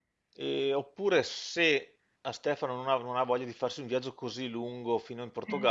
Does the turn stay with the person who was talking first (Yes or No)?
Yes